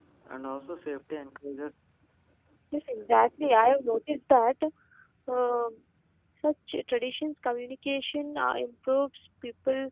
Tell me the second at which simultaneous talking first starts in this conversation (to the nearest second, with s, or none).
none